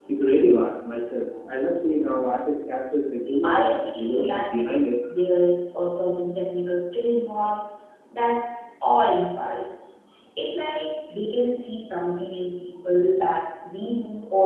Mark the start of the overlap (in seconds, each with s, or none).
3.4 s